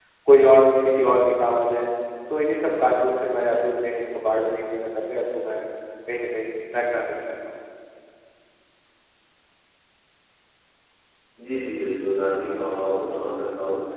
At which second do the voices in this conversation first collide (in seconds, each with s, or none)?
none